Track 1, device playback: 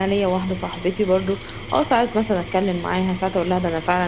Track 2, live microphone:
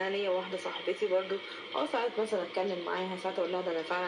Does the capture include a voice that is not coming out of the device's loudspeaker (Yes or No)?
No